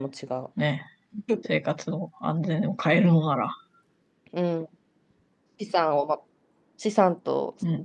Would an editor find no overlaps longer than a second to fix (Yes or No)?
Yes